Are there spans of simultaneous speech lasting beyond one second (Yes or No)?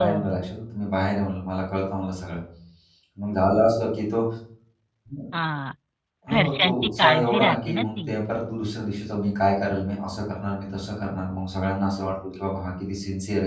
Yes